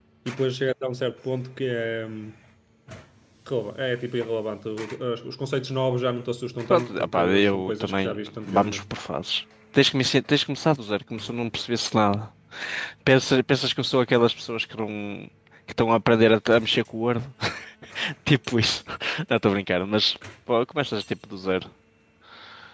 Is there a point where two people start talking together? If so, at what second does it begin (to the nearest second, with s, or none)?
7 s